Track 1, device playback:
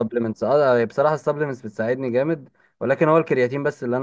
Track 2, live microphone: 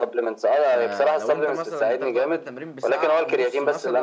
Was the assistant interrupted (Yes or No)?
Yes